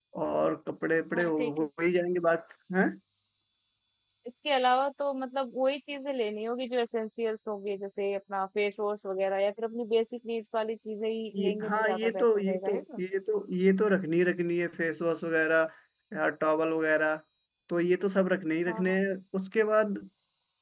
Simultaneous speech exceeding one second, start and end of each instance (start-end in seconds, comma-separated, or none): 11.3-13.0